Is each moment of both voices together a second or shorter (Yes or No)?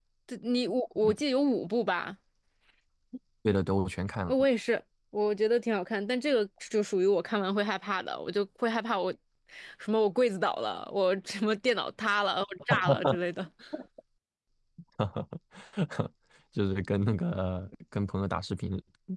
Yes